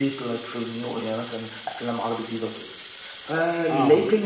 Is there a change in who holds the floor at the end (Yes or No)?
No